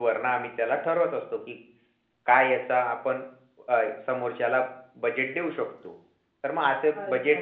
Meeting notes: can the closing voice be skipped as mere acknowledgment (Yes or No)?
Yes